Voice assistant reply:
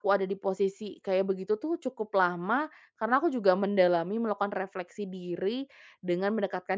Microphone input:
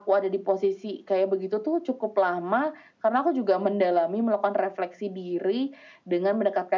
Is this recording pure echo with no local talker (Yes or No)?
Yes